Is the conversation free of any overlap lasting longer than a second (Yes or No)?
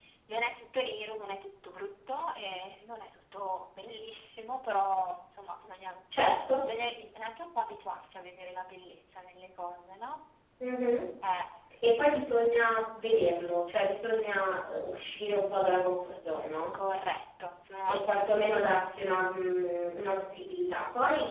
Yes